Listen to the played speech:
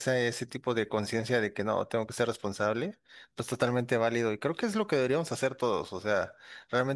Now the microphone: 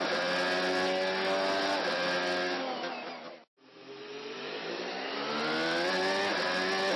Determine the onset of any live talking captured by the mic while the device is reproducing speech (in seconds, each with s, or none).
none